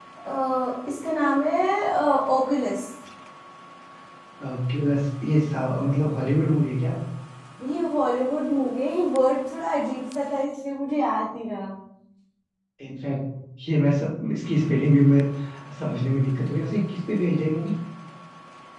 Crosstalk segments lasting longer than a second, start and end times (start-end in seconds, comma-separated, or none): none